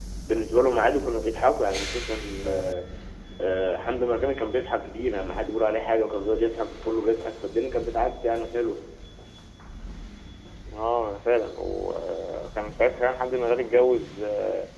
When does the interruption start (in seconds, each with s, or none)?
none